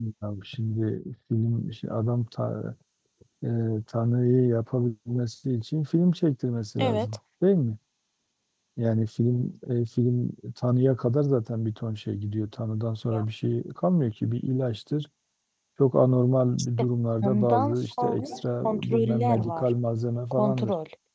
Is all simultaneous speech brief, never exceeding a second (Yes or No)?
No